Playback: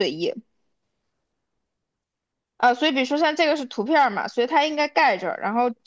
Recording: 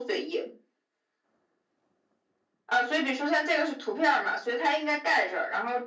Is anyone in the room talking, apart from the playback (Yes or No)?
No